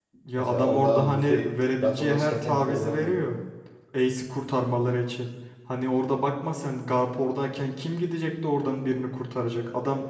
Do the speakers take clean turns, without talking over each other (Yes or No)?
No